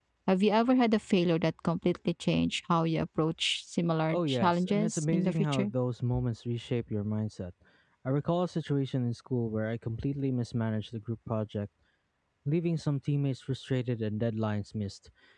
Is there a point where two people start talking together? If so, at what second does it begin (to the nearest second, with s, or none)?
4 s